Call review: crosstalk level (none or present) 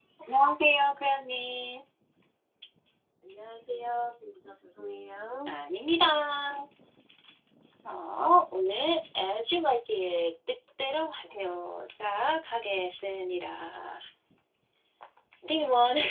none